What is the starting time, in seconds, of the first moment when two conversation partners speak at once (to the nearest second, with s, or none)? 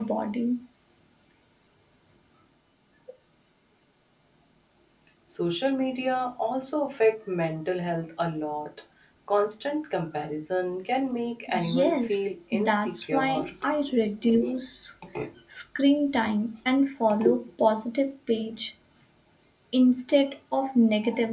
12 s